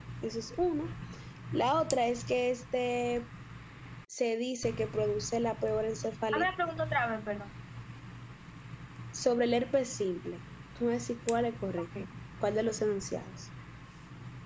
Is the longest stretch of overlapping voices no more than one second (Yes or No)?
Yes